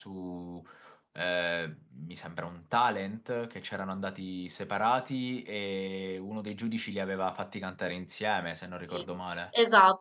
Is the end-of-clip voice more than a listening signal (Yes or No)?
Yes